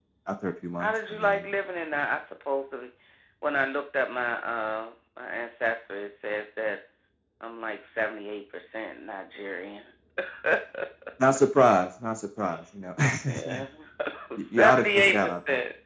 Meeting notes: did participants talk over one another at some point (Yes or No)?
Yes